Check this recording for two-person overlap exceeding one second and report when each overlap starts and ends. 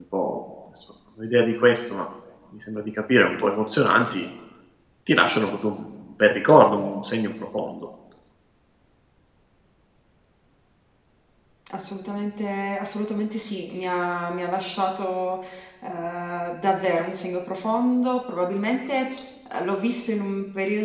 none

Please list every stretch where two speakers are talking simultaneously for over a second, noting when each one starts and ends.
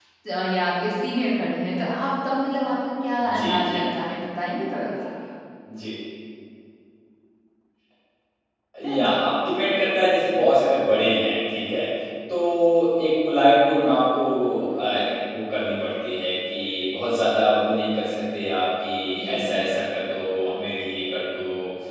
none

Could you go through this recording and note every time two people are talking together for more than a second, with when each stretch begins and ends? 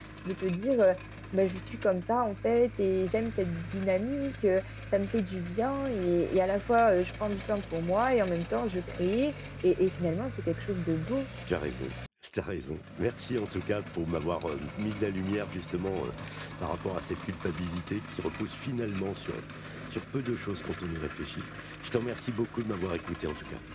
none

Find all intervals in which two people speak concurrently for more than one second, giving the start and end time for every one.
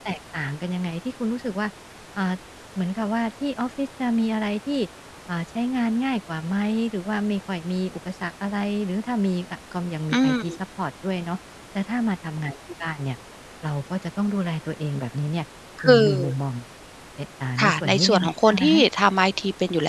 17.6-18.8

